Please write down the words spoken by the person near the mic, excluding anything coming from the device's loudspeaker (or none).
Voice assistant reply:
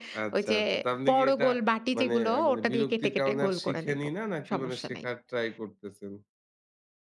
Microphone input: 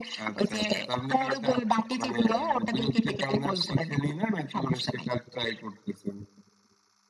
none